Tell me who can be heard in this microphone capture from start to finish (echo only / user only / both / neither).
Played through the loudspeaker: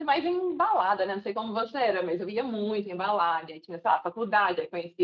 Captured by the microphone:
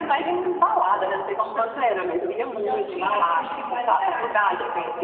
both